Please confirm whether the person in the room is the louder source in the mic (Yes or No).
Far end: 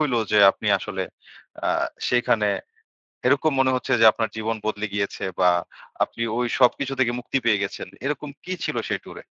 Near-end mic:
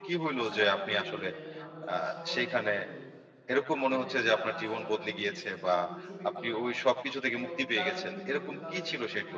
No